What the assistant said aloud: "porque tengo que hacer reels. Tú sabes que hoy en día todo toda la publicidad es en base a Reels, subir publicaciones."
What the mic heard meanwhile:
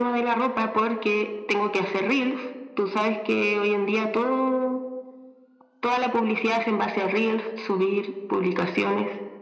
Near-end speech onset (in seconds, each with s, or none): none